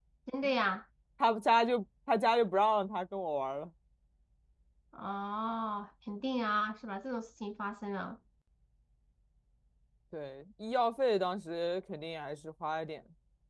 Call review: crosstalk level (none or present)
none